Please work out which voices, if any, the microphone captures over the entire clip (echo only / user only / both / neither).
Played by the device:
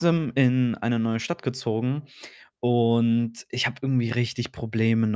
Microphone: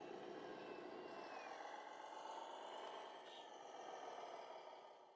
neither